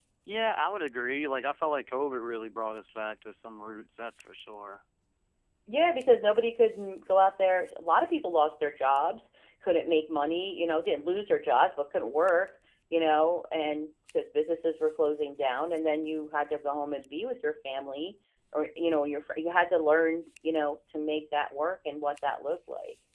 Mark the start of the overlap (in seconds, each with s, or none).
none